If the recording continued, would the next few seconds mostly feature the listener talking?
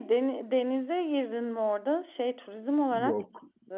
Yes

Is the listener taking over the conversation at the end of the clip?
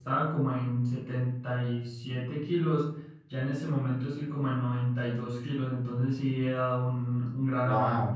Yes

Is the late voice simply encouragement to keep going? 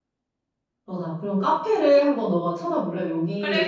No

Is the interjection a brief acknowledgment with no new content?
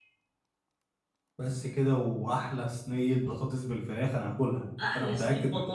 No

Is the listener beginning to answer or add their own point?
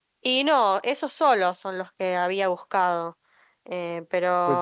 Yes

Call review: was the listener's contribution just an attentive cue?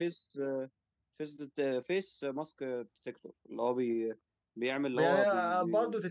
No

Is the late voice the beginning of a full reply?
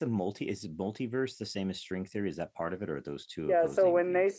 Yes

